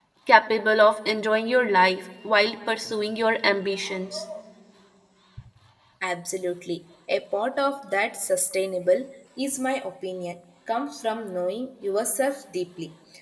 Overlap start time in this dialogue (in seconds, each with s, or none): none